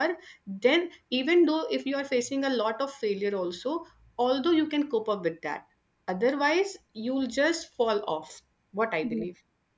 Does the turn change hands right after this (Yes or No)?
Yes